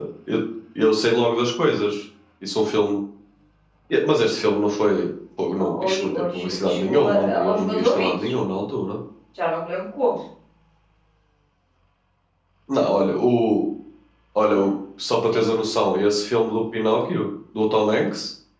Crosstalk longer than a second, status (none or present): present